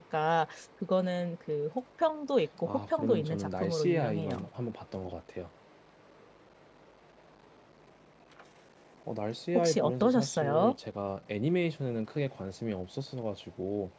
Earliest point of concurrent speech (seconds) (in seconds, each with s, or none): 2.7 s